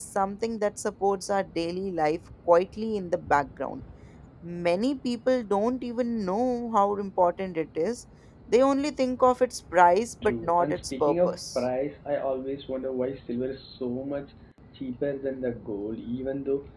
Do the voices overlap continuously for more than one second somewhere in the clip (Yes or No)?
Yes